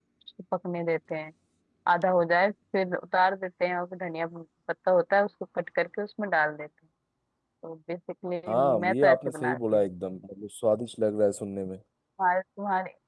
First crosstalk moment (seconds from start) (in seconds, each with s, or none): 8.5 s